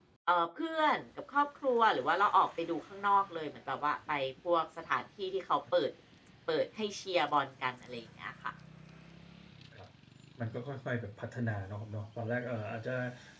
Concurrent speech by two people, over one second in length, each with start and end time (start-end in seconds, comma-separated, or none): none